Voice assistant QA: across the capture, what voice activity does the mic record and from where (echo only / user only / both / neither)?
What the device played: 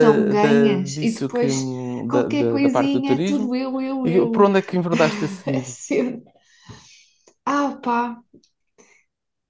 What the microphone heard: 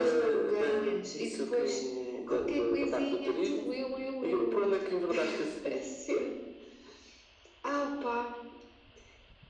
echo only